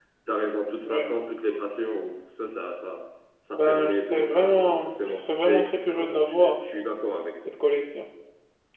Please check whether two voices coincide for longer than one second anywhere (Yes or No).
Yes